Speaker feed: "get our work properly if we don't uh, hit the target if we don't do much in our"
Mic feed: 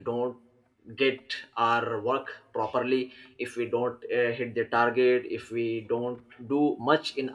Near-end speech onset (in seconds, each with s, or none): none